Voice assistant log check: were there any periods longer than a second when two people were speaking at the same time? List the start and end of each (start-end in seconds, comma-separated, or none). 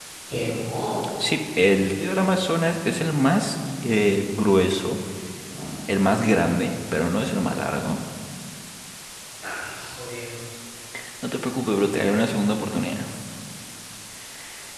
none